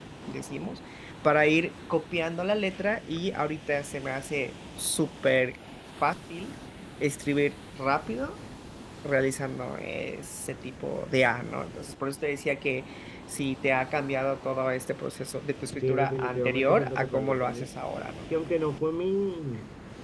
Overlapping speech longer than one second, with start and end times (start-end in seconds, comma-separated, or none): 15.8-17.7